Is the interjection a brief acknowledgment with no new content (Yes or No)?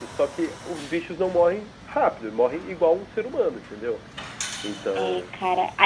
No